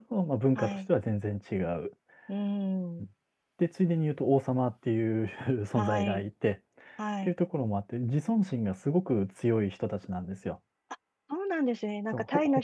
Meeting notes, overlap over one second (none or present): none